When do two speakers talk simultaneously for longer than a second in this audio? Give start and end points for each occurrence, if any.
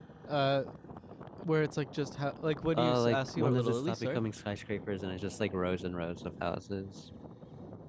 2.8-4.2

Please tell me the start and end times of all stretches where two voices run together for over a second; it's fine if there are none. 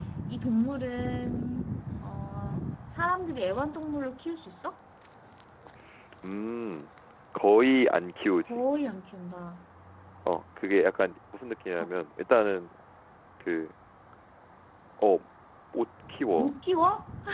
none

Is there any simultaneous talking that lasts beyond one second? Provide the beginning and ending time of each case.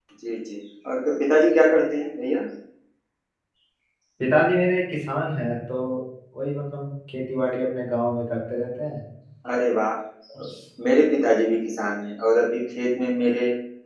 none

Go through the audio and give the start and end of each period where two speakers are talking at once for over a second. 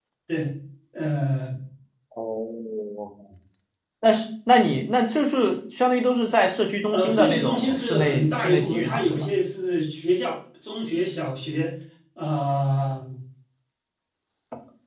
6.9-9.3

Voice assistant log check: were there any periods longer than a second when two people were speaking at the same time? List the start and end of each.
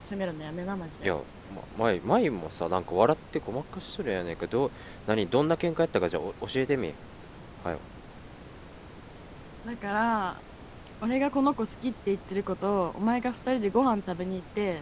none

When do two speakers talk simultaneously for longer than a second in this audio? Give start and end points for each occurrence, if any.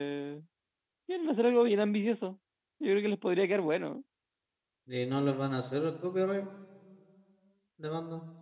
none

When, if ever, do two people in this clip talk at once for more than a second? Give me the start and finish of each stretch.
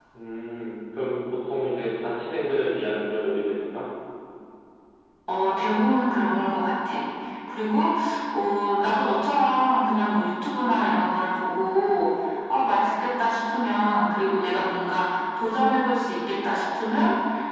none

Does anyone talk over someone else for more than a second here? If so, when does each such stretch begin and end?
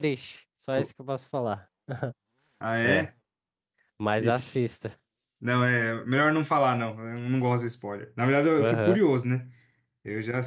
none

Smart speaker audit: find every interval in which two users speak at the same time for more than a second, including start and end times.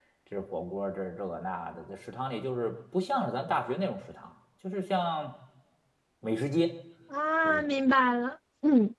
none

